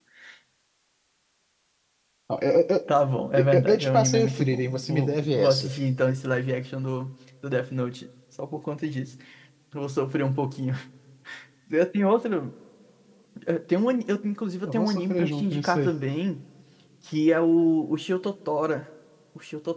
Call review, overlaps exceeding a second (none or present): present